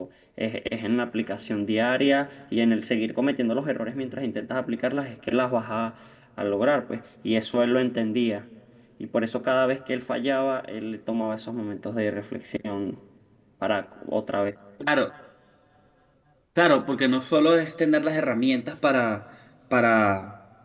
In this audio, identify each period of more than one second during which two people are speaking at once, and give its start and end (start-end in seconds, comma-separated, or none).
none